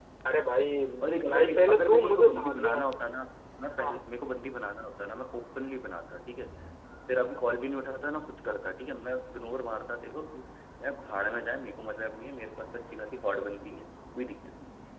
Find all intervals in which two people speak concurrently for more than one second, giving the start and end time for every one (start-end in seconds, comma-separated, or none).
1.3-2.8